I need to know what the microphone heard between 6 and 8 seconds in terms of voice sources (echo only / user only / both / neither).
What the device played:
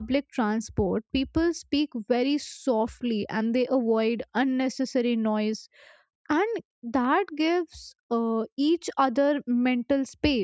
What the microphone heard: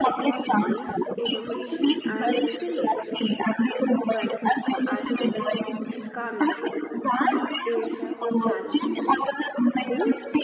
both